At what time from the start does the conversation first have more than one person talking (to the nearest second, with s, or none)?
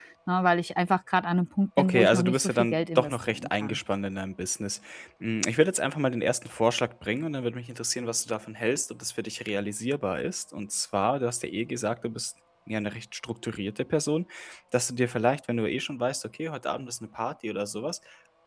2 s